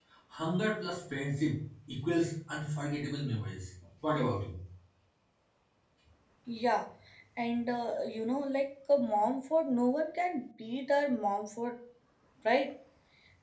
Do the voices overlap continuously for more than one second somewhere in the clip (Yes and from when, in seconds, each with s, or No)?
No